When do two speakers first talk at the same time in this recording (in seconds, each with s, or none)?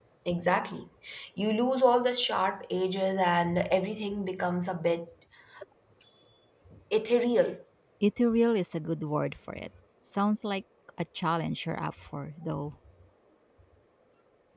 none